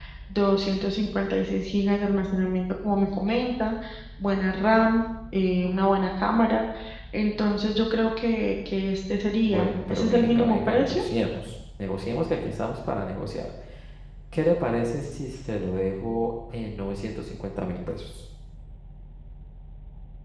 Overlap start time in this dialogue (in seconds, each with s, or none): 9.5 s